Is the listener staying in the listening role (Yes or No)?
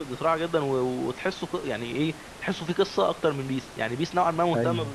Yes